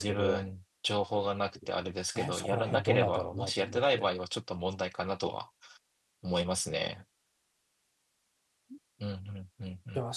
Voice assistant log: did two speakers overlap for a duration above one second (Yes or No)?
Yes